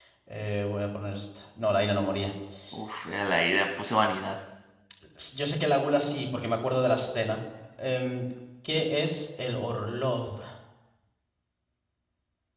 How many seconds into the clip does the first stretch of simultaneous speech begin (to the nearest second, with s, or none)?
none